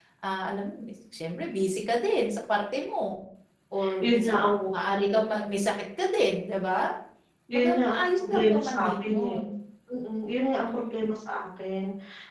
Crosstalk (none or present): present